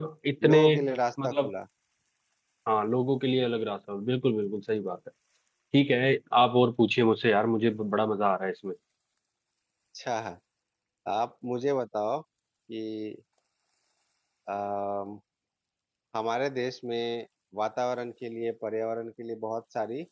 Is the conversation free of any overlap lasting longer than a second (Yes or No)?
Yes